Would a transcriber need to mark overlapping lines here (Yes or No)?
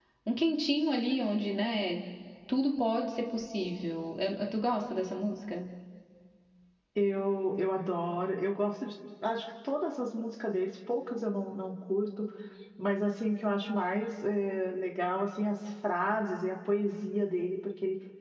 No